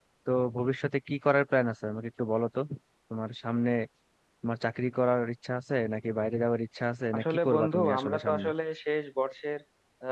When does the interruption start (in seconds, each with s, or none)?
7.1 s